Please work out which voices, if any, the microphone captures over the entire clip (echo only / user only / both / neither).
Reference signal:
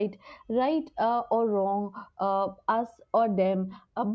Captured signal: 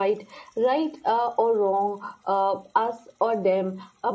echo only